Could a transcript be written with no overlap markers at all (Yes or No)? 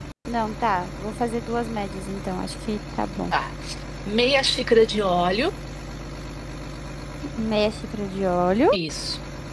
Yes